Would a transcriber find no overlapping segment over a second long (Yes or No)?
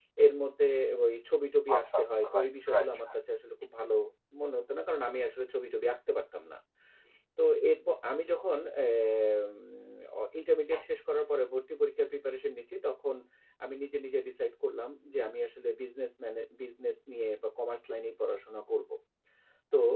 No